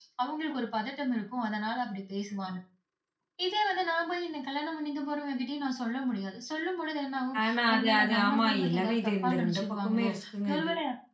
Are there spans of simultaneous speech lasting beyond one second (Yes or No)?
Yes